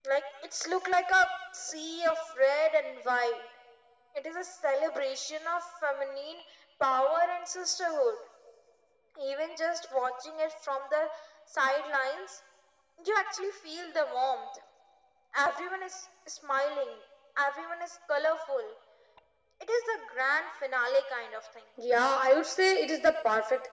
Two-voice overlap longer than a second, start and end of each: none

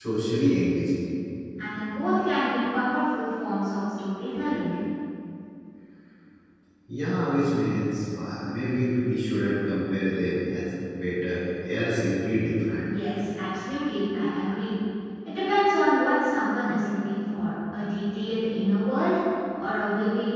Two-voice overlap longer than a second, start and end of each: none

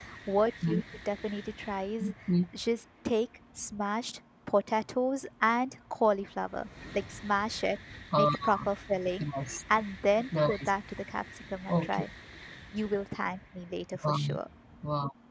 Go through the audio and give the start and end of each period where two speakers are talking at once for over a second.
none

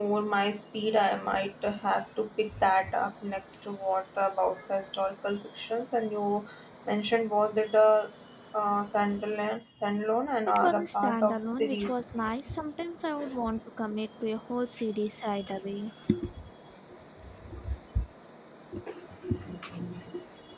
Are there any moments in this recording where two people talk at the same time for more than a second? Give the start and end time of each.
10.5-12.0

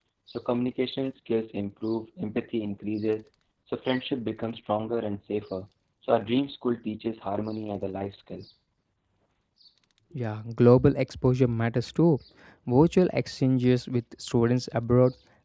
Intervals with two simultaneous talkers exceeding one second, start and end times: none

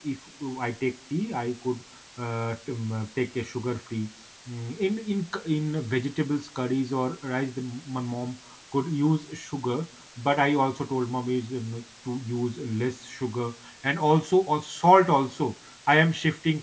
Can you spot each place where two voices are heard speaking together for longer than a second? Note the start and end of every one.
none

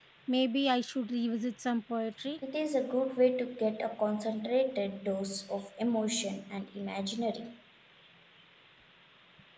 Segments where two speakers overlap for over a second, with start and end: none

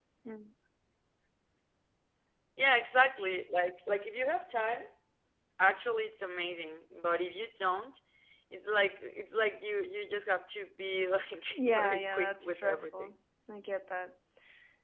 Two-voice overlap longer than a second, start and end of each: 11.6-13.1

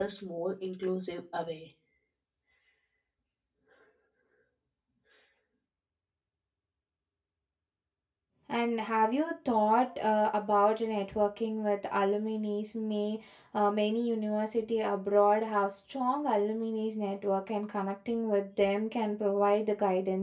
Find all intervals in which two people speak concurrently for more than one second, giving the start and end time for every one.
none

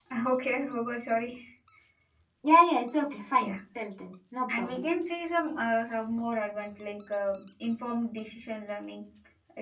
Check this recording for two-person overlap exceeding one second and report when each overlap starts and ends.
none

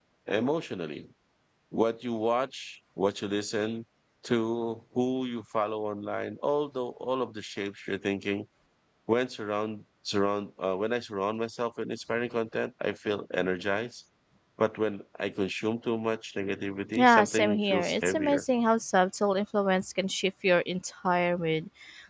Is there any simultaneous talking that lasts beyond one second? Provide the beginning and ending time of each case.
16.9-18.4

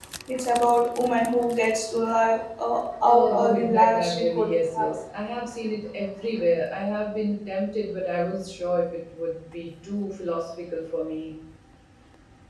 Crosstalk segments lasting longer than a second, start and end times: 3.0-4.9

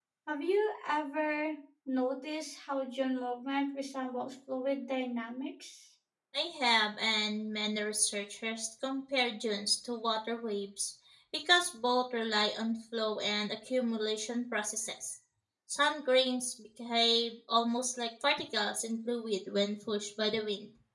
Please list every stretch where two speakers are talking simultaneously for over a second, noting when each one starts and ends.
none

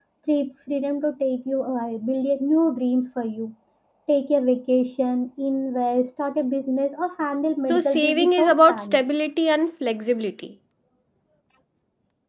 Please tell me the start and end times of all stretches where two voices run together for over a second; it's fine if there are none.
7.7-9.0

